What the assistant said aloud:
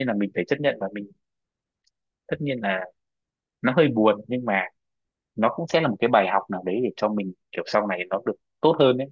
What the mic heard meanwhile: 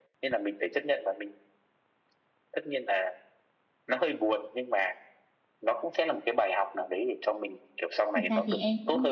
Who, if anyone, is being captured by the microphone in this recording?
both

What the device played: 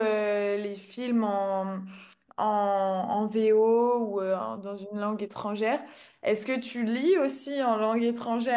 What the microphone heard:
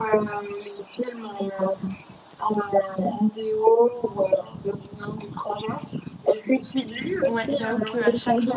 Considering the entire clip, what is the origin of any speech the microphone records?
both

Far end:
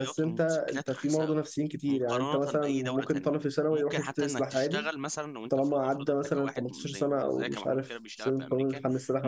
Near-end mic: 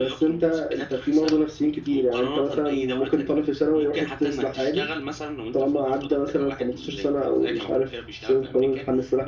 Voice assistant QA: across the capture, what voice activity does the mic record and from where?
echo only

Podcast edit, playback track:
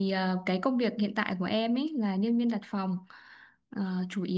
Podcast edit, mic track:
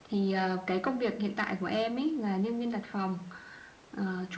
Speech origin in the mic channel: echo only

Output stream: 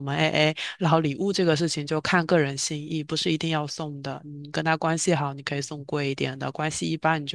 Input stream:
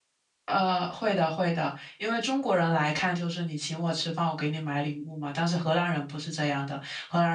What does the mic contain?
user only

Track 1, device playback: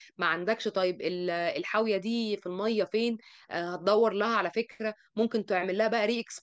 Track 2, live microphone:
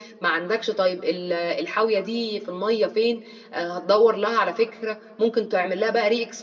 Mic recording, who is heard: echo only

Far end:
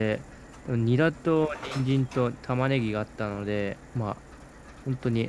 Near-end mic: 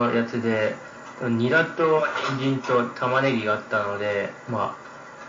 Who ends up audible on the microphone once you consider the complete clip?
echo only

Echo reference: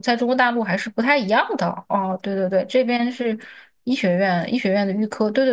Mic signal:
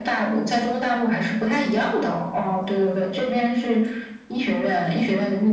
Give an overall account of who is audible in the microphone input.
echo only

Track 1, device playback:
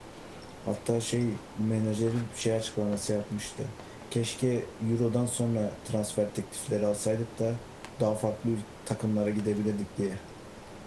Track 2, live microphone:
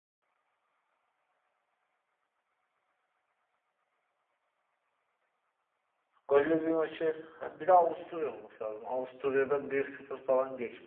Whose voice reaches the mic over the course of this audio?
user only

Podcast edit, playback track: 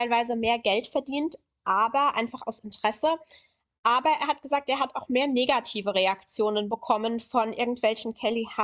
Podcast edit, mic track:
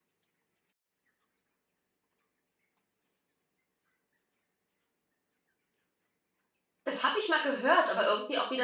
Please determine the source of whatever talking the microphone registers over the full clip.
user only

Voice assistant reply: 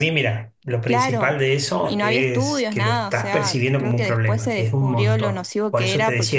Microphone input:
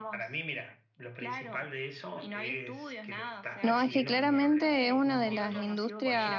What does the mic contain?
both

